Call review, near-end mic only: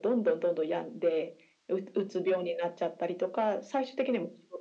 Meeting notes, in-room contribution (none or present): none